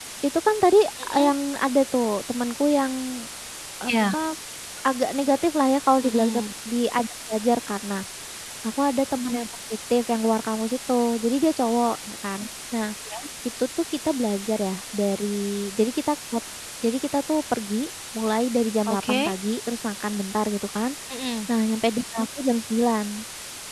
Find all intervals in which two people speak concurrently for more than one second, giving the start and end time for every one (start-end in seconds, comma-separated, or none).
none